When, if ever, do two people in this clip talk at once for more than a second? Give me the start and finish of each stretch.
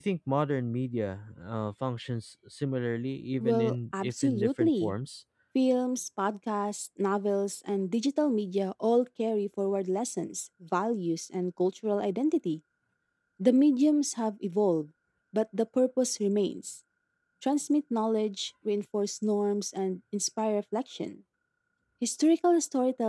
3.4-4.9

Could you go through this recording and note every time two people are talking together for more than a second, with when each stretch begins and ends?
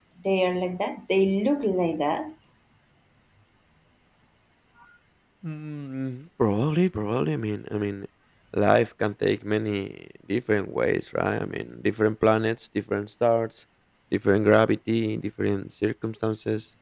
none

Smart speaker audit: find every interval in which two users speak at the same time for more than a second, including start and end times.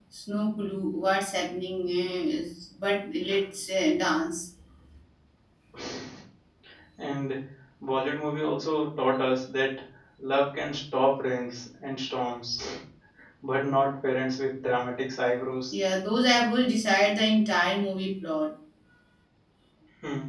none

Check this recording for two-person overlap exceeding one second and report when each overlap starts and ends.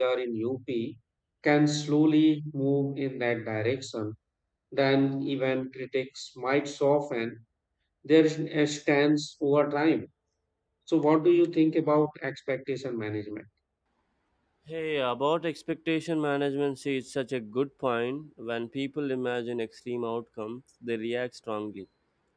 none

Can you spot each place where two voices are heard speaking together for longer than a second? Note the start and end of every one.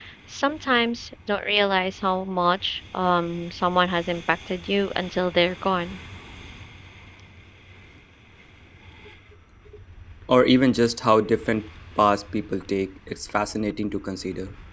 none

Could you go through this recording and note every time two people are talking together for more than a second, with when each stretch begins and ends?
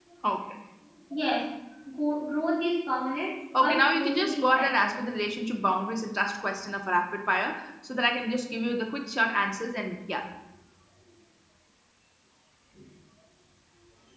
3.6-5.0

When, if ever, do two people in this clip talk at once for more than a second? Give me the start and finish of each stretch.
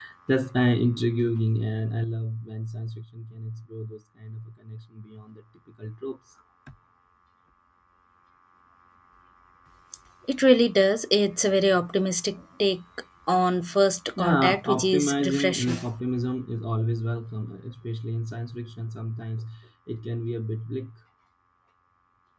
14.2-15.8

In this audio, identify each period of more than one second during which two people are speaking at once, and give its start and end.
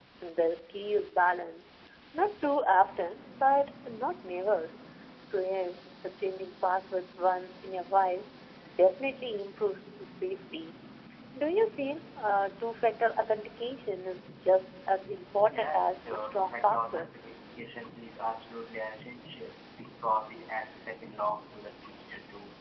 15.5-17.1

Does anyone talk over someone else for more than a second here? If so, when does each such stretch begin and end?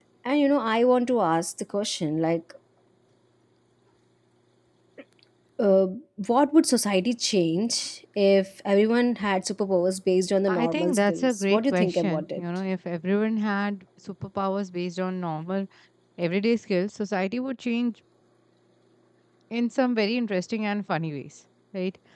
10.5-12.4

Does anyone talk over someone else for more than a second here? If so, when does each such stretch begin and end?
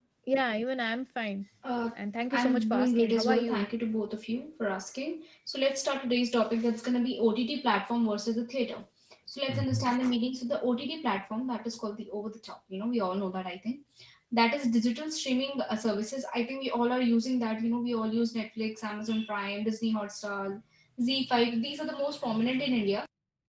2.3-3.7

